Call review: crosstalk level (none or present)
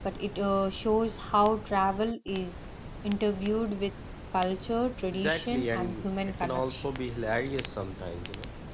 present